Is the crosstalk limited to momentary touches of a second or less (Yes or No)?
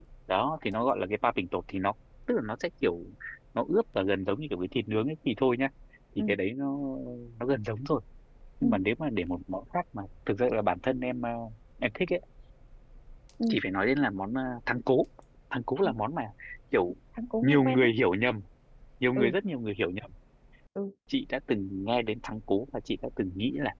Yes